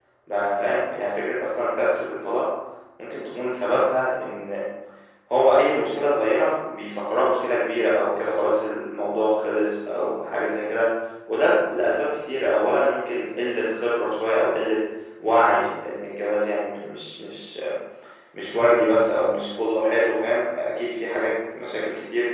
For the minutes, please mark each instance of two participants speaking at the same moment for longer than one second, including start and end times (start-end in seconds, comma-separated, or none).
none